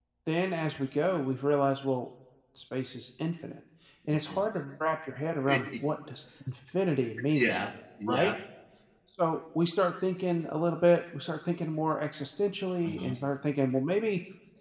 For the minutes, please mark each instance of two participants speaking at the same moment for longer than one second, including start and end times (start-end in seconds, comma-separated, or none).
none